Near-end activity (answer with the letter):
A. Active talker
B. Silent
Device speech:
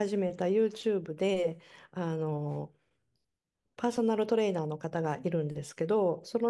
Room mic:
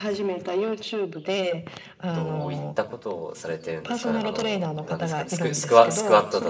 A